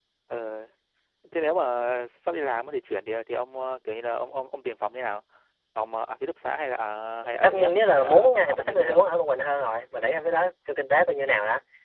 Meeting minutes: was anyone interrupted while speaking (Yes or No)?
Yes